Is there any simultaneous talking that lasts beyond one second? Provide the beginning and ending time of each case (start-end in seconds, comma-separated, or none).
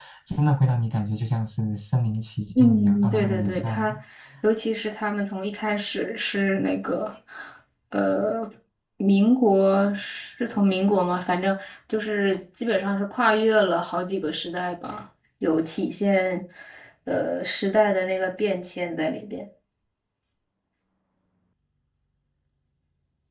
2.6-4.0